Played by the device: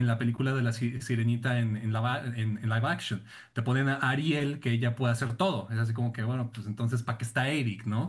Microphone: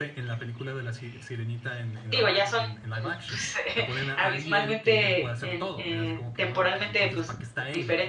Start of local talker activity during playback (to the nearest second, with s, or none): 2 s